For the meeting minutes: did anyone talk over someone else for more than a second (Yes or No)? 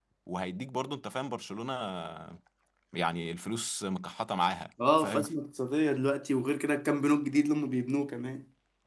No